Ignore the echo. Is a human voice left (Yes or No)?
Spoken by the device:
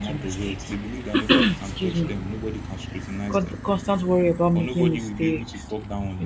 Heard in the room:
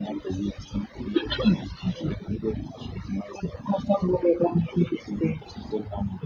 No